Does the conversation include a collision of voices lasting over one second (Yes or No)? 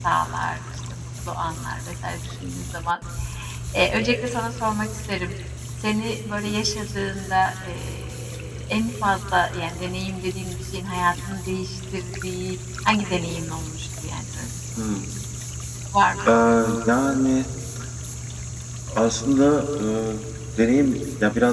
No